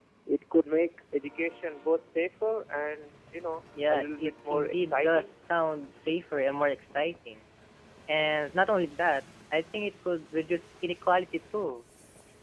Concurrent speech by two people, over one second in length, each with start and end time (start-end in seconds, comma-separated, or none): 3.9-5.3